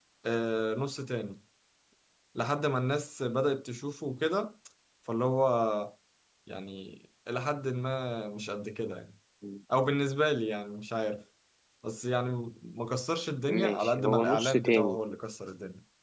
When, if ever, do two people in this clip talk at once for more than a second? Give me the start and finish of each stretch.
13.5-15.0

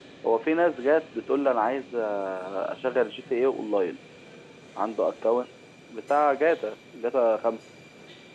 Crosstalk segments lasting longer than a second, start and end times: none

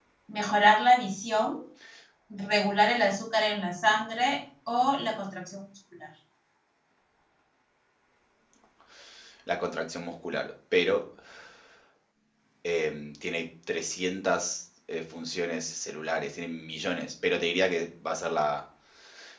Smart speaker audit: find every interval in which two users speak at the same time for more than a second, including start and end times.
none

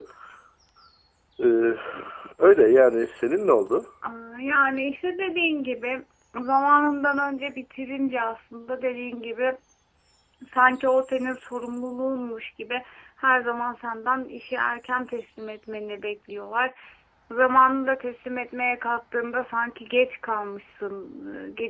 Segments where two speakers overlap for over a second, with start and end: none

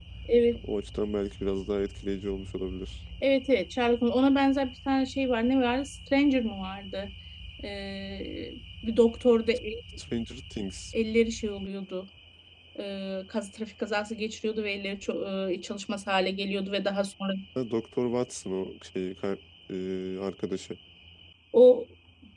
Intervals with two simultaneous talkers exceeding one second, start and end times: none

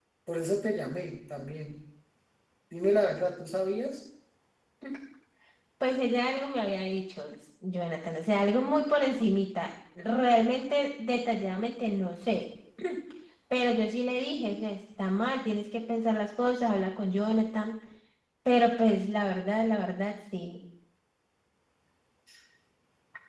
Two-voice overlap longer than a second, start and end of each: none

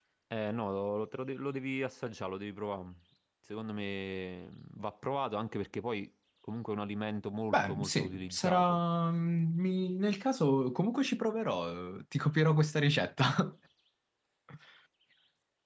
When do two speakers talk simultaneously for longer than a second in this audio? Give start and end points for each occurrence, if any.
7.5-8.8

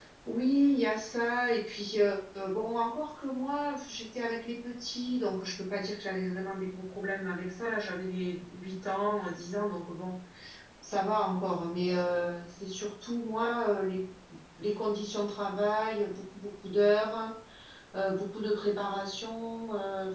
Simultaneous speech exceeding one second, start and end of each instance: none

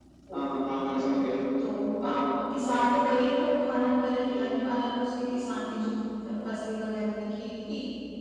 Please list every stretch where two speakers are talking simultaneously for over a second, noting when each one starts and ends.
none

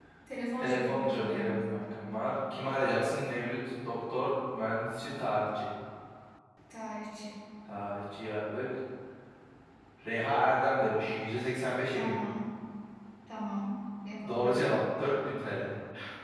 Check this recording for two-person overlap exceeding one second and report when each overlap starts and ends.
0.6-2.0

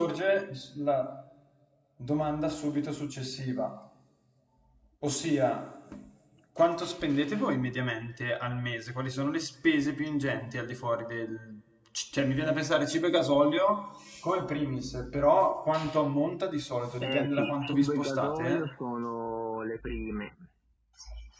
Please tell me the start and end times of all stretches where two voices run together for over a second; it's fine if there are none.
17.0-18.6

